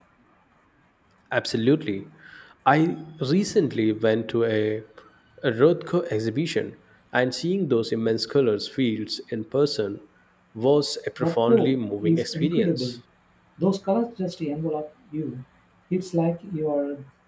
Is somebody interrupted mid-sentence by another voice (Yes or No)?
Yes